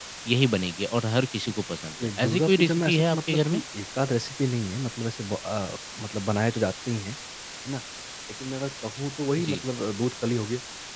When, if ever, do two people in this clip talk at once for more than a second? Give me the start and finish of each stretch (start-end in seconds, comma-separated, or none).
2.0-3.6